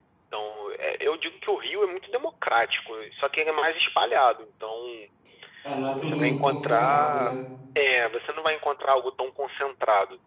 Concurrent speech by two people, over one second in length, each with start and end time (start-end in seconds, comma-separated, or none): 6.0-7.3